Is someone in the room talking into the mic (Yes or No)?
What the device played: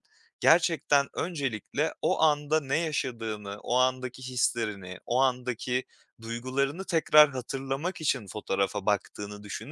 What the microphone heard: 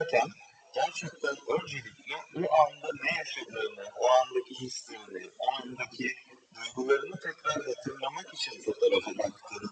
No